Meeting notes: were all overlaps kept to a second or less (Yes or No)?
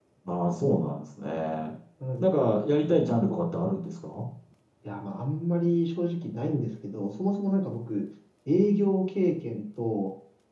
Yes